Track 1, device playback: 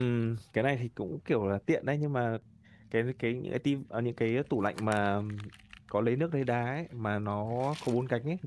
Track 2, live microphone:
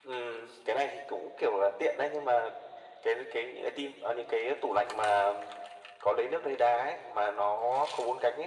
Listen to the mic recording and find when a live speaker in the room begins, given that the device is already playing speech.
none

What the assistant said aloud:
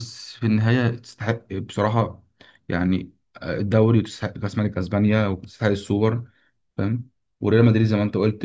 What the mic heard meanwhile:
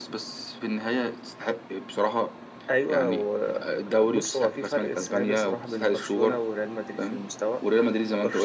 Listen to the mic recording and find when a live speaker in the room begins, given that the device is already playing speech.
3 s

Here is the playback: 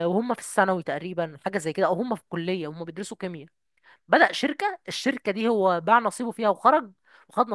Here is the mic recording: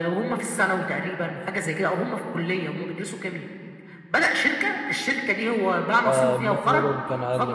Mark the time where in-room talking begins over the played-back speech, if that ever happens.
6 s

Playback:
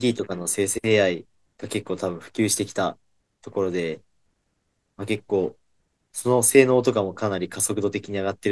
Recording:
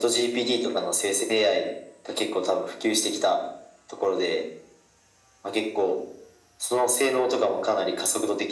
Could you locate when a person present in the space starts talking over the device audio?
none

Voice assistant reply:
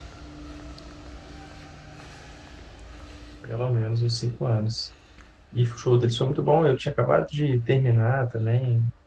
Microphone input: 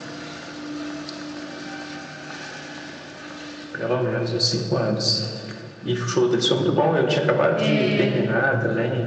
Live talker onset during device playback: 8 s

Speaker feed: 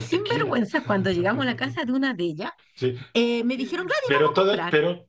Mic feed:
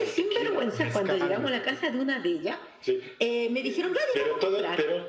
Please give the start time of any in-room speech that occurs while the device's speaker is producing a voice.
1 s

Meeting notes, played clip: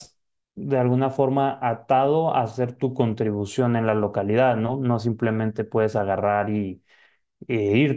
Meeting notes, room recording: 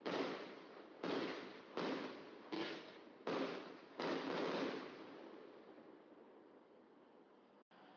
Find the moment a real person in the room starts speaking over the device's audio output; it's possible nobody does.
none

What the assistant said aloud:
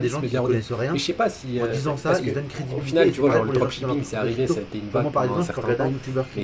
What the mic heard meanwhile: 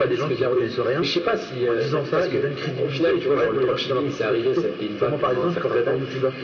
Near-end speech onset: none

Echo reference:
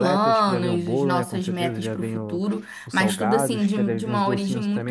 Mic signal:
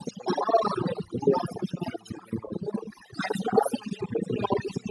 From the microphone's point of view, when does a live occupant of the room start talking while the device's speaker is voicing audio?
none

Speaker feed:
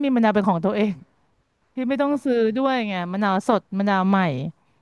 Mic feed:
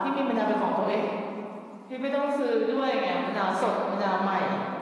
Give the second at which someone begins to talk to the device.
none

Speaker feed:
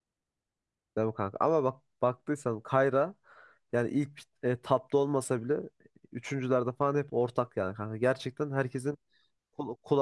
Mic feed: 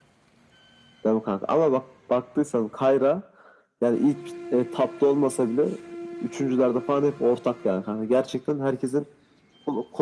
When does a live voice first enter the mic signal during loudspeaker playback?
none

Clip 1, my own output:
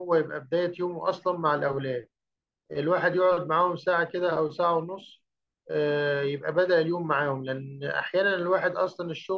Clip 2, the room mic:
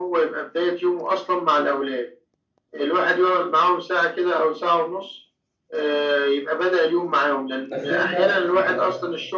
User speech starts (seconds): 8 s

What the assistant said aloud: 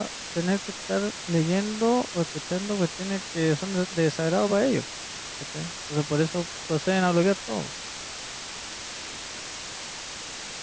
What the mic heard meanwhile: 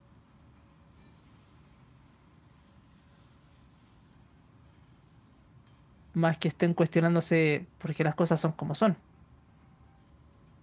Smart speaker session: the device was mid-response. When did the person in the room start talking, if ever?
6 s

